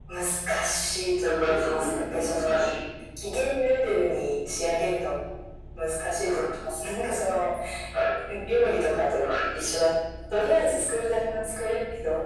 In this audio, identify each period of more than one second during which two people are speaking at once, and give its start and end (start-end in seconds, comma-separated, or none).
1.2-2.6